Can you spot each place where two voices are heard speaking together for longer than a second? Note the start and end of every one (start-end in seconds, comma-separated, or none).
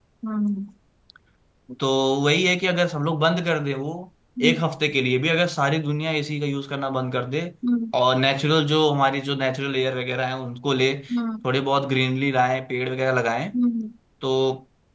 none